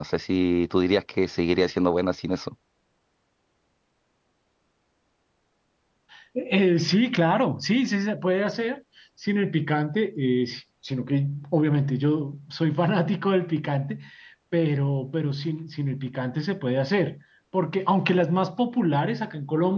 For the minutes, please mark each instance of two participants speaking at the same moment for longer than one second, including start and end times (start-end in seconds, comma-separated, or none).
none